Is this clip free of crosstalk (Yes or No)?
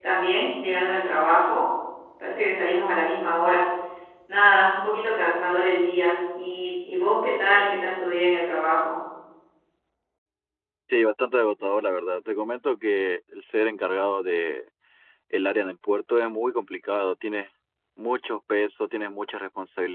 Yes